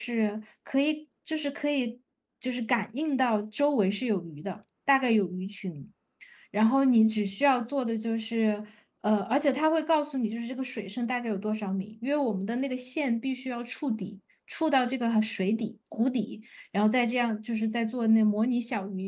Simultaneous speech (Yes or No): No